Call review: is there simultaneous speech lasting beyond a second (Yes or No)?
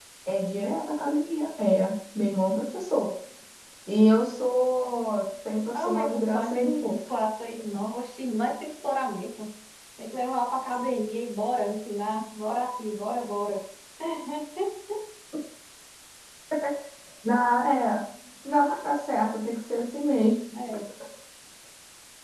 Yes